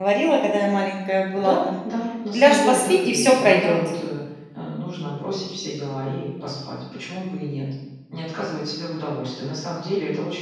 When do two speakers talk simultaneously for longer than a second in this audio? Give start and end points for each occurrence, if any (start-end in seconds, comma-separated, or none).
2.3-3.9